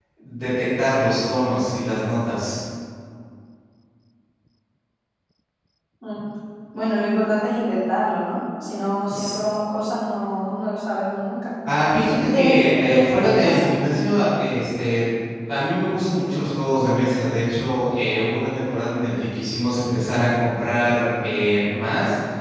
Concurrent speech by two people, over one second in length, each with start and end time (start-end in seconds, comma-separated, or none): 12.1-13.7